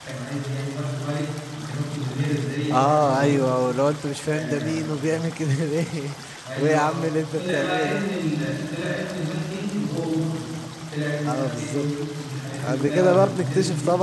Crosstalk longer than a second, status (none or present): present